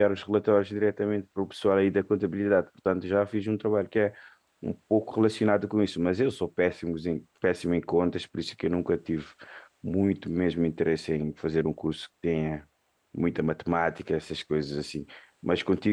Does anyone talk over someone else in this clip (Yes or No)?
No